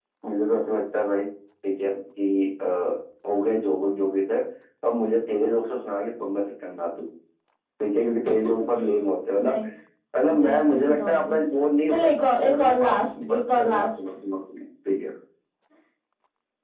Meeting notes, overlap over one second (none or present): present